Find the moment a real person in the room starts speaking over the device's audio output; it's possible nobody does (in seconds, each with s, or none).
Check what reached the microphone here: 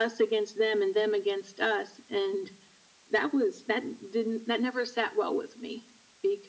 none